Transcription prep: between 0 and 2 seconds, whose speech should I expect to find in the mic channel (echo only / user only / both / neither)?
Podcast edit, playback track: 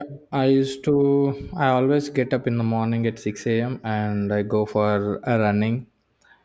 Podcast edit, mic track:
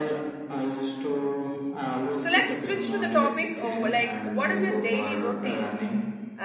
echo only